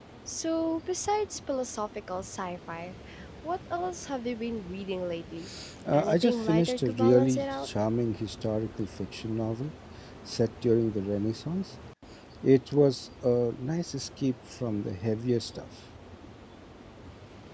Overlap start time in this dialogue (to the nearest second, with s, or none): 6 s